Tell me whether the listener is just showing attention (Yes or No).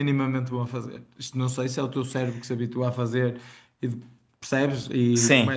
Yes